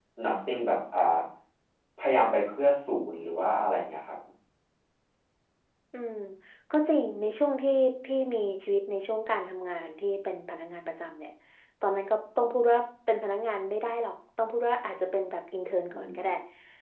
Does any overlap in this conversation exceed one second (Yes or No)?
No